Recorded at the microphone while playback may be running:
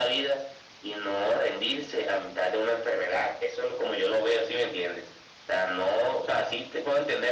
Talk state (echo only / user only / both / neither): echo only